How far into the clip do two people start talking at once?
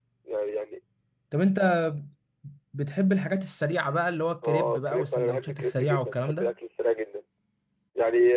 4.4 s

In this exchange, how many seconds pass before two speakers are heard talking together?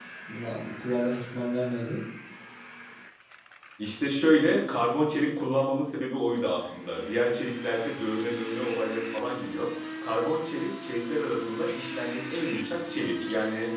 none

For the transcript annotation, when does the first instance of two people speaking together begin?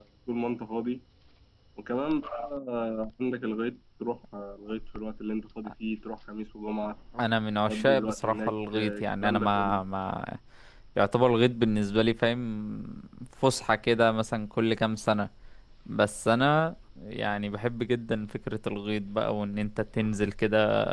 7.7 s

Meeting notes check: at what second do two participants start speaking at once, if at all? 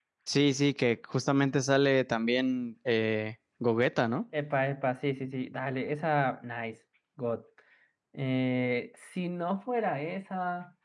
none

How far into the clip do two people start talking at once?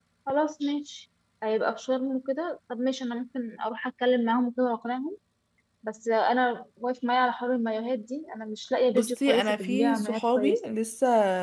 8.9 s

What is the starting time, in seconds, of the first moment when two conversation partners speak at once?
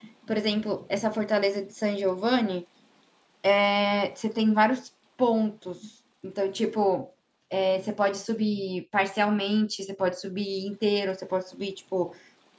none

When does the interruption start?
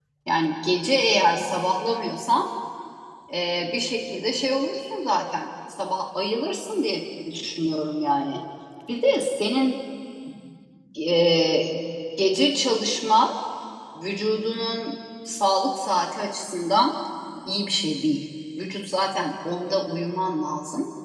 none

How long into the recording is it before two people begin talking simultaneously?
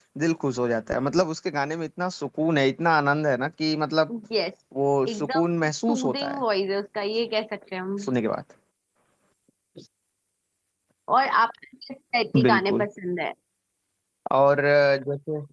5.1 s

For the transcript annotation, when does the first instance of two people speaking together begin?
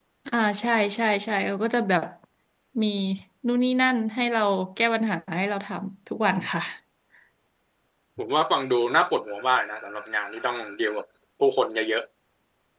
none

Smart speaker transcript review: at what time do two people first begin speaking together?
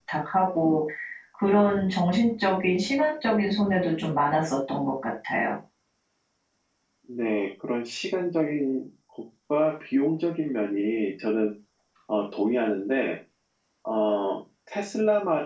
none

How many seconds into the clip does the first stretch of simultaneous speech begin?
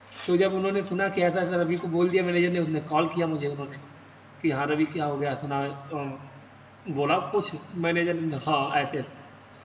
none

